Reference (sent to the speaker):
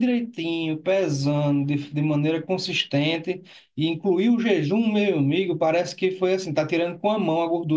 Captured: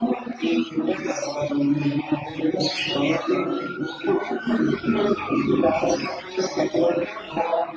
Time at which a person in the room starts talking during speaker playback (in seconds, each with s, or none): none